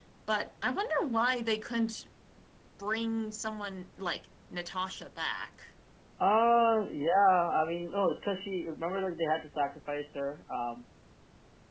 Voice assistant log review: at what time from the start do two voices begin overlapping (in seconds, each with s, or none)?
none